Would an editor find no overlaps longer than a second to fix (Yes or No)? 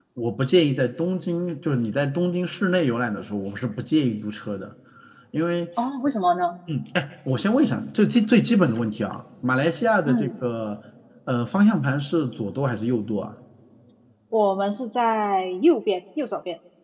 Yes